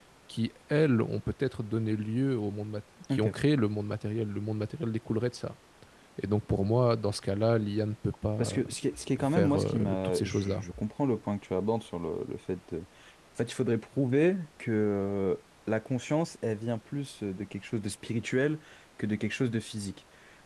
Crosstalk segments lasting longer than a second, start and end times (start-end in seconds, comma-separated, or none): 9.2-10.6